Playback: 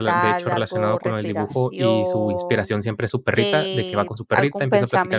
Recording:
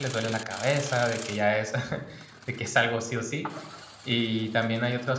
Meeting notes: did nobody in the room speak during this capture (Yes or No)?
No